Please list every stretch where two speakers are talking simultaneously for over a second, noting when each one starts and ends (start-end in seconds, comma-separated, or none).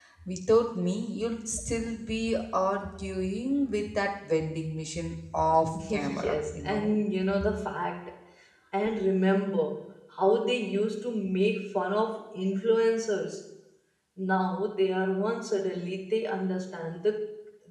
5.7-7.0